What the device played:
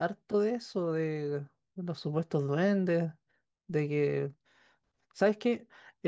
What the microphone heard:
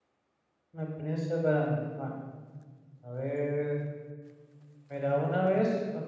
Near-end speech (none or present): present